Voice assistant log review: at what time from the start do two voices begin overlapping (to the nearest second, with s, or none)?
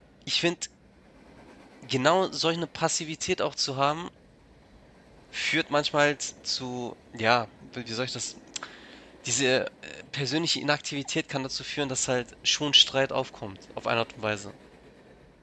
none